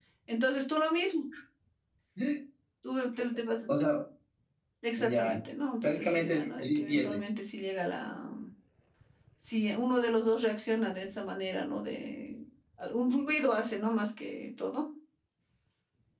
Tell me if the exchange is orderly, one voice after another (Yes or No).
No